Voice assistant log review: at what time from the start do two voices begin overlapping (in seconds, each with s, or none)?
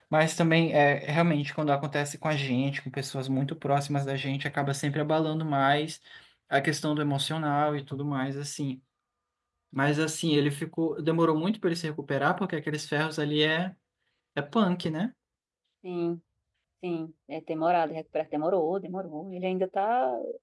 none